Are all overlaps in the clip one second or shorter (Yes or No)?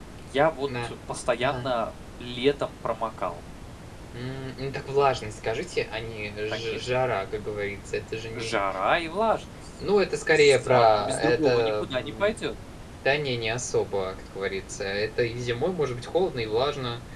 No